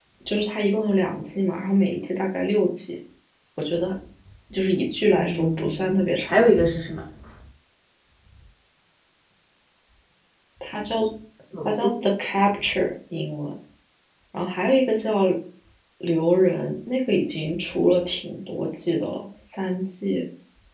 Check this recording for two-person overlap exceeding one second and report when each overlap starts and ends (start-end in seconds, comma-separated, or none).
5.1-6.5